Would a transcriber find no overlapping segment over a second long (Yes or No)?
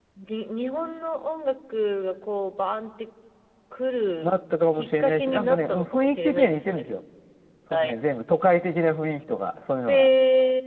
No